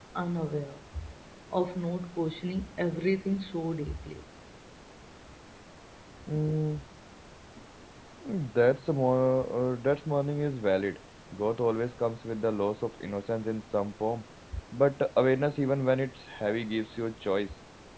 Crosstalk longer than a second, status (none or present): none